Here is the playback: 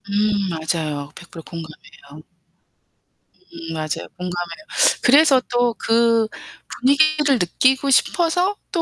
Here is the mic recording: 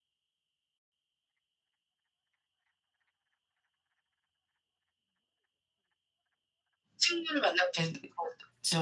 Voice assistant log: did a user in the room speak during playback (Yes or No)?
Yes